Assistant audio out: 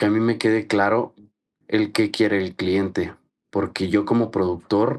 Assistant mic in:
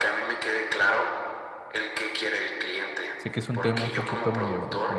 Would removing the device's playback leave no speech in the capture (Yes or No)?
No